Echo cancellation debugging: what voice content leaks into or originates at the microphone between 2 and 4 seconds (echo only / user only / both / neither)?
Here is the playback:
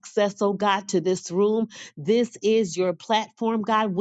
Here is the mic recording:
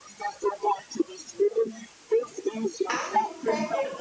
both